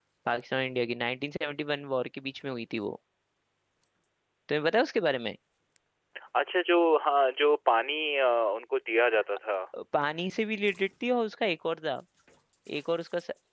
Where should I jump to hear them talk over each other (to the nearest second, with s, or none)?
none